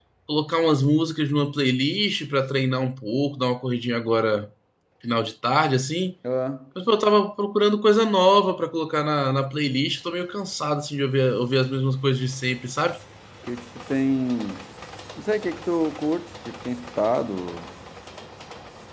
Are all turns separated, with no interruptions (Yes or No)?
Yes